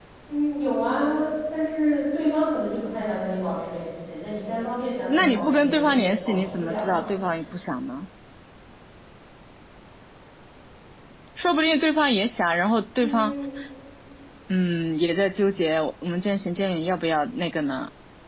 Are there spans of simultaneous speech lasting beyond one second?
Yes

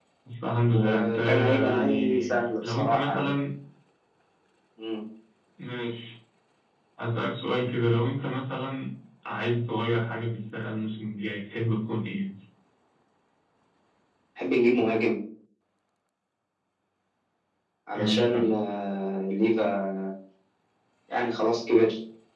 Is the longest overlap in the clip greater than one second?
Yes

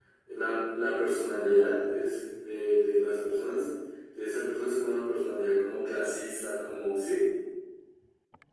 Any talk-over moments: No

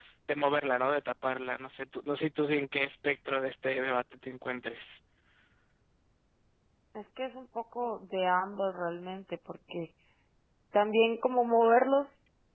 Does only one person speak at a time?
Yes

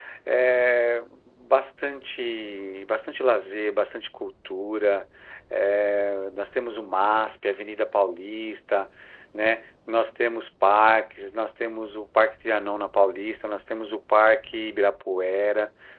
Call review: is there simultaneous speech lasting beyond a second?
No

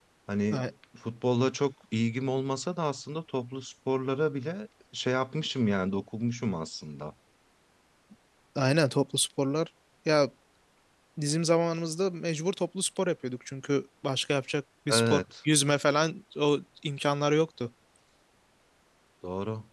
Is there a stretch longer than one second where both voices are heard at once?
No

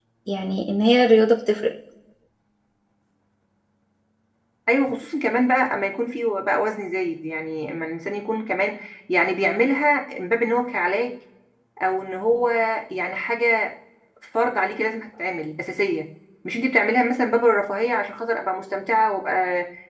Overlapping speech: No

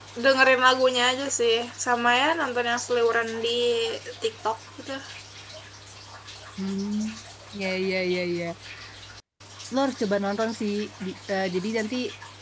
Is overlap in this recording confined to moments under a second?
Yes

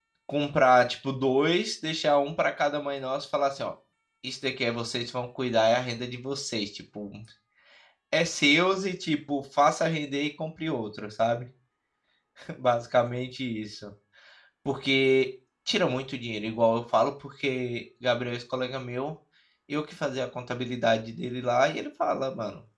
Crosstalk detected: No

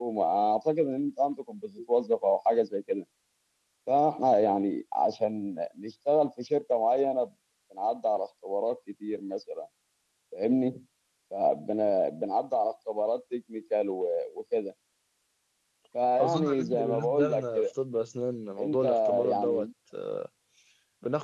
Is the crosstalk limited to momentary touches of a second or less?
No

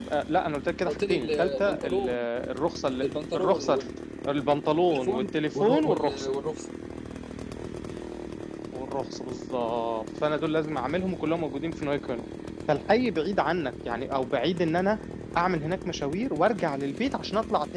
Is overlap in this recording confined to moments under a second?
No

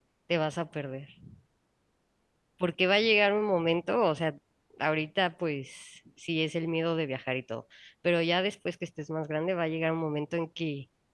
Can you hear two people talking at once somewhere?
No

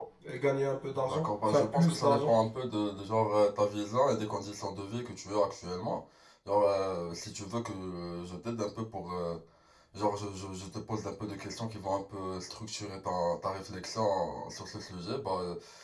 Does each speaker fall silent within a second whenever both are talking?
No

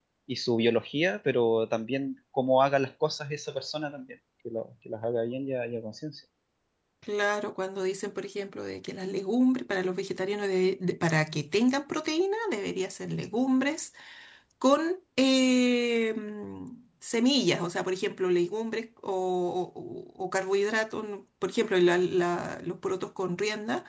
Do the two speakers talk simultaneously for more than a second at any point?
No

